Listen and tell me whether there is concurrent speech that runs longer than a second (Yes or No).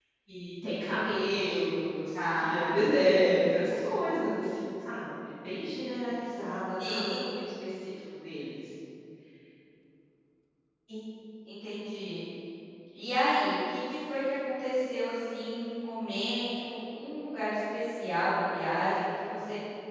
No